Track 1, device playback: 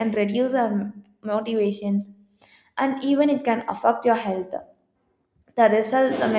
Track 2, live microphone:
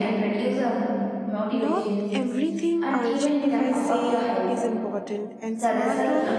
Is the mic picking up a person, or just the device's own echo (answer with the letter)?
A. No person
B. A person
B